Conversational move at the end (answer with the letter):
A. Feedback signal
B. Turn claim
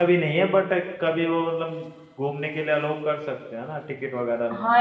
B